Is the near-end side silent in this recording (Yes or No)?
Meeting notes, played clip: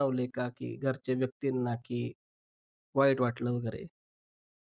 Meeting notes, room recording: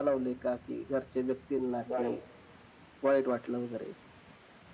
No